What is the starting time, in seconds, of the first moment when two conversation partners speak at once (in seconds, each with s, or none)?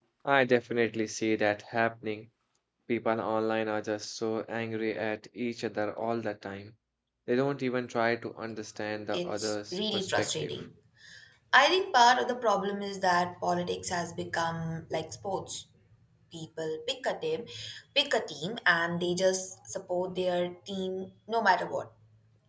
9.1 s